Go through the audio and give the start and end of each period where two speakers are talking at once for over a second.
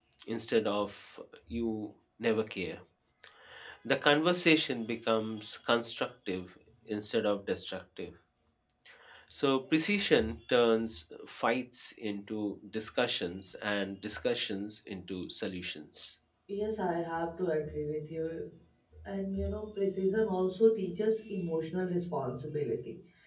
none

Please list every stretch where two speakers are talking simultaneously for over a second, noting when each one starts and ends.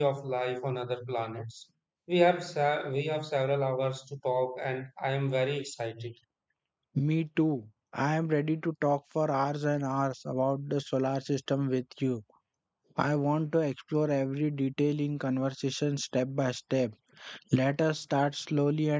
none

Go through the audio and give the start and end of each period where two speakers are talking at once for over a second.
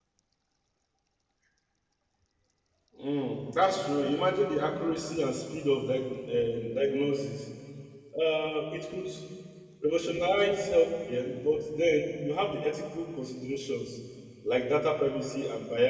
none

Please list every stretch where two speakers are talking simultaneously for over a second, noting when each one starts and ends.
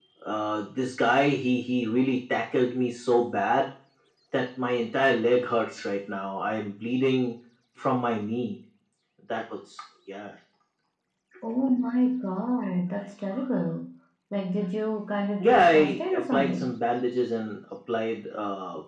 15.4-16.7

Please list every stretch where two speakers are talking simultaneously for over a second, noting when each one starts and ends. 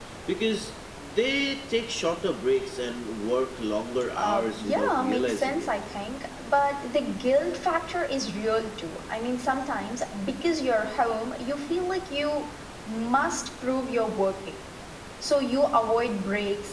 4.2-5.7

